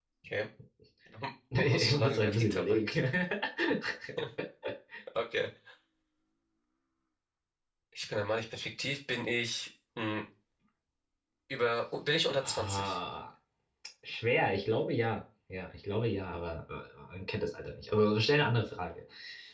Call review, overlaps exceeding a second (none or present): present